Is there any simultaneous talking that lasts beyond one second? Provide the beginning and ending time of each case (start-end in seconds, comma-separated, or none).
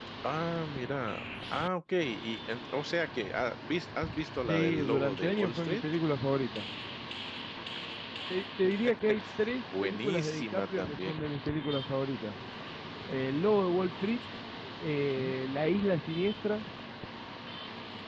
4.4-5.8, 9.8-11.2